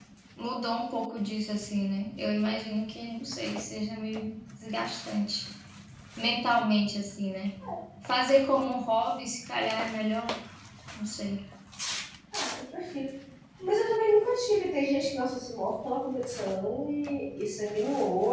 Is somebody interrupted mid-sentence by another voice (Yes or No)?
No